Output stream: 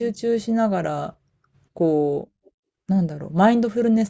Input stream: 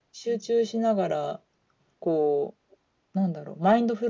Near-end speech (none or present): none